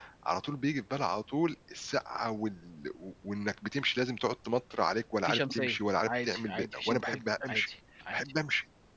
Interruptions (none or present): present